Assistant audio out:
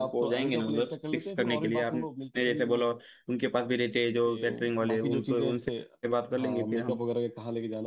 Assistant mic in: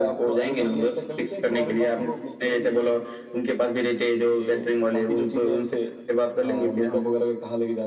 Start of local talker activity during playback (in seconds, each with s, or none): none